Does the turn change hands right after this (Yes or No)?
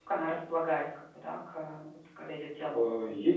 Yes